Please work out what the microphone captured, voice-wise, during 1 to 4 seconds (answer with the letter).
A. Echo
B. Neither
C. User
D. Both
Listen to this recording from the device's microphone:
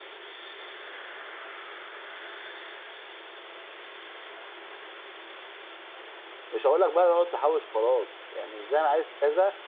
B